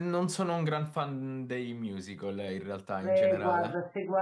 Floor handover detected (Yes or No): Yes